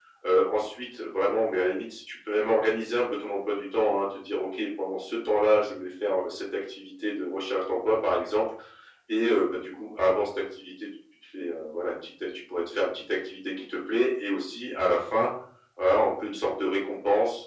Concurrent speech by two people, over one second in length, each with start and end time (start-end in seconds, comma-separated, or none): none